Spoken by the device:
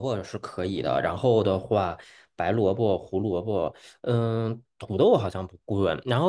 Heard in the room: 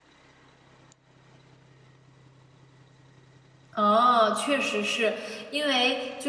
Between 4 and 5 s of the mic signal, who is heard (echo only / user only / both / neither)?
user only